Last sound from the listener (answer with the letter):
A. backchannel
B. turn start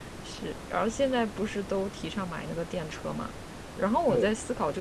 A